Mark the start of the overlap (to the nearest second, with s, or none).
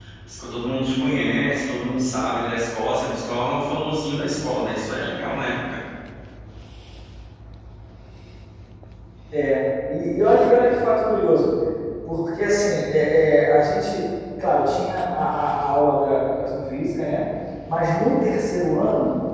none